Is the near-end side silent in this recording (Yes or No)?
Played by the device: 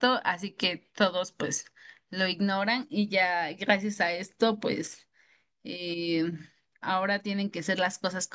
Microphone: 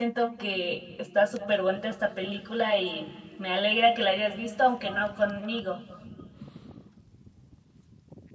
No